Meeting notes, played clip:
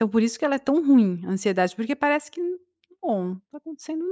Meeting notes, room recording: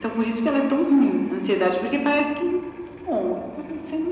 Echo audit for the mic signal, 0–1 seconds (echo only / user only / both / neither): echo only